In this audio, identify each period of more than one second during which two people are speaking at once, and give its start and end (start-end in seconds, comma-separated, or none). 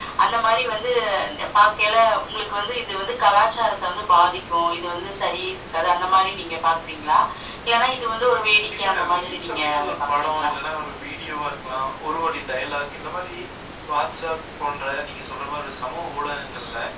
8.6-10.5